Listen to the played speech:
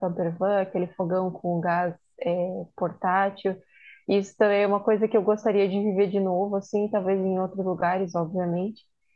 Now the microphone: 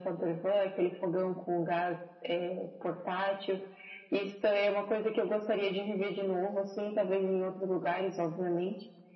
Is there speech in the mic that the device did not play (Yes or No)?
No